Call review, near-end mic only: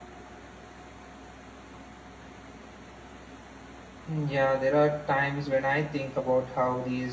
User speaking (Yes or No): Yes